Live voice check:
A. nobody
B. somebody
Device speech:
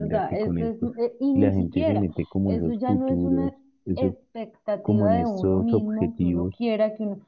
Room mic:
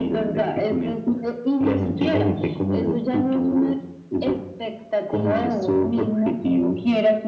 A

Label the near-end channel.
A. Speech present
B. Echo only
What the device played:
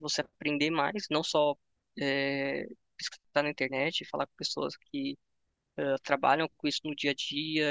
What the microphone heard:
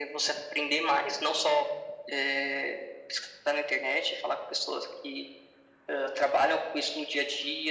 B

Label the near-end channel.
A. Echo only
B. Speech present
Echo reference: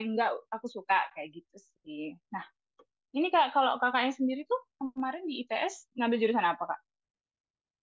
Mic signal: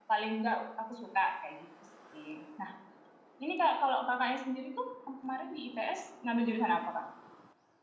A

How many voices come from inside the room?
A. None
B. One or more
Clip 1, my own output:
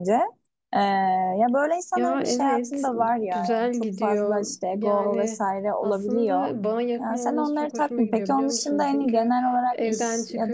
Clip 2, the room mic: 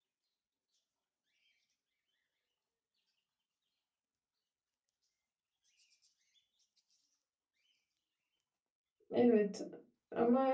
B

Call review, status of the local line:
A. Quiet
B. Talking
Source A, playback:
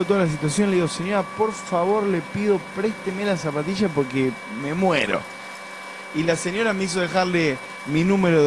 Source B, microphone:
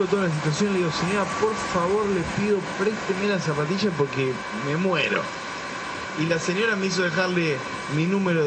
A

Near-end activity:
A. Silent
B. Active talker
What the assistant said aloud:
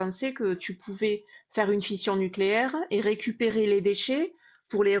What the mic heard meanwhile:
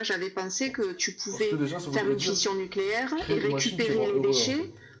B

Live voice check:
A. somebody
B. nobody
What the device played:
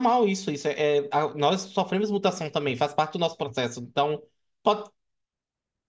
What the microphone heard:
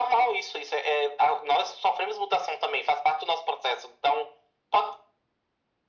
B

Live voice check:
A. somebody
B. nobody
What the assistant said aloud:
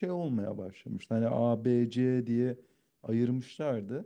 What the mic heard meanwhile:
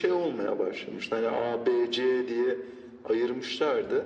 B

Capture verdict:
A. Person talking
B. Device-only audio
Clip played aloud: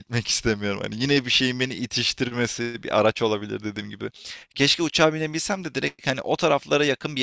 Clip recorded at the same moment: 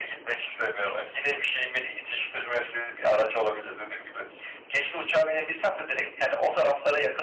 B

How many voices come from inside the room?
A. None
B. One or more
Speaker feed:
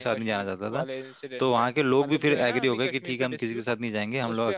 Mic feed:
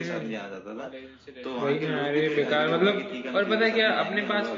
B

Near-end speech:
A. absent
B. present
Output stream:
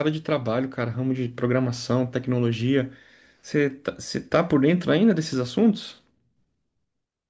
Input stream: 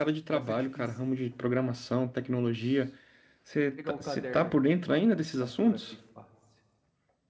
B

